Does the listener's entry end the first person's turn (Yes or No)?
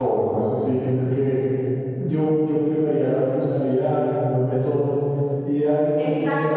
Yes